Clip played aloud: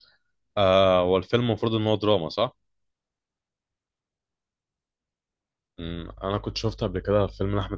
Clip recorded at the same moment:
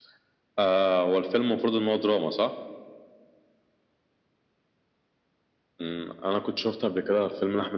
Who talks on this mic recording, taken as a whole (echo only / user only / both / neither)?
echo only